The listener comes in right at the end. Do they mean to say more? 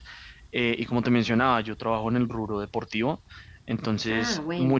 No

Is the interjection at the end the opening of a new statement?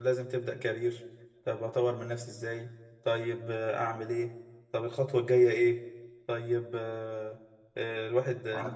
No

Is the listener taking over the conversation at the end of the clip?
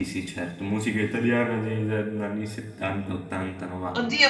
Yes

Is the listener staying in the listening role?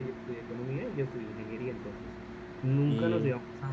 Yes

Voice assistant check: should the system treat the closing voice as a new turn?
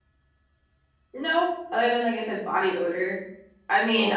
No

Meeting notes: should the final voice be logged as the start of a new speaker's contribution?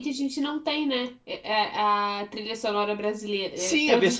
Yes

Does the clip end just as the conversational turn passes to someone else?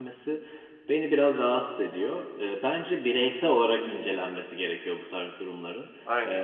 No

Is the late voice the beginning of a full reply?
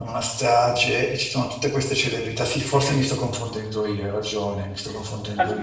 Yes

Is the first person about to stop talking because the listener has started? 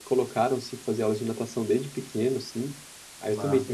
No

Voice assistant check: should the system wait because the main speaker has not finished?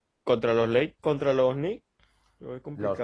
No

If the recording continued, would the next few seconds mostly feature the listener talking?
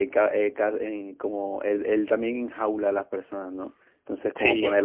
No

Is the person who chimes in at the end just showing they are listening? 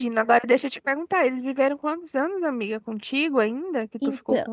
No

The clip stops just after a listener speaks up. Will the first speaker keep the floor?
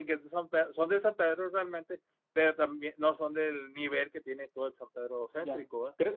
No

